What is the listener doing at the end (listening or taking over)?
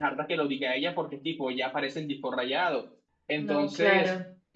listening